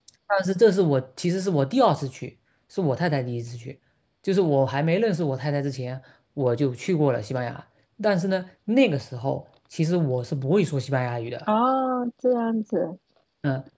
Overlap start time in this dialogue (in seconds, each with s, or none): none